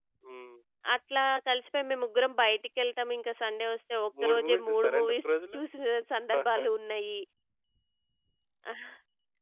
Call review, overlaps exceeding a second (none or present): present